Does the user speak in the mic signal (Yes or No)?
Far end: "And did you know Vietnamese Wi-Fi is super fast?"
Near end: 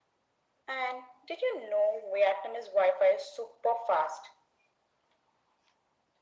No